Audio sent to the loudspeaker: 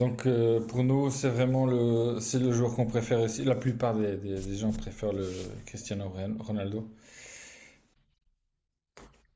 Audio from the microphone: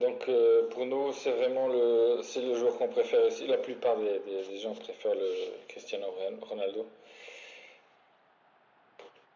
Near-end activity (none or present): none